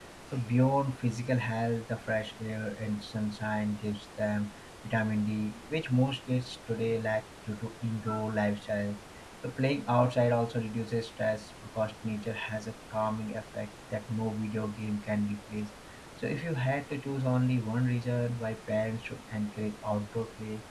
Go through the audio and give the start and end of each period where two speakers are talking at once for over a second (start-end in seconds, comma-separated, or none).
none